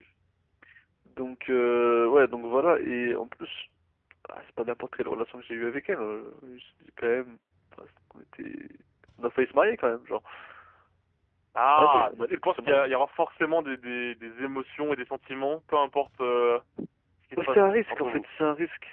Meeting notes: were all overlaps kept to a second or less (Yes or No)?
No